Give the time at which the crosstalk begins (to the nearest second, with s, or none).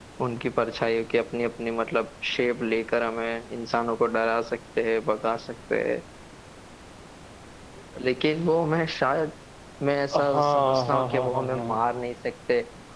10 s